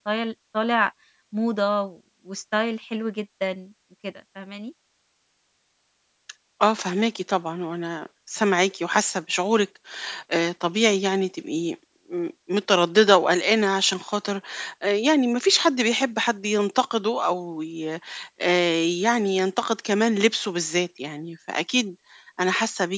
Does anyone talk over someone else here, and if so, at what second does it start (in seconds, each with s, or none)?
none